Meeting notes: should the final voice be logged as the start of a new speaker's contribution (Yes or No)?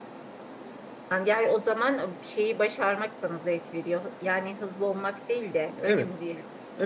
Yes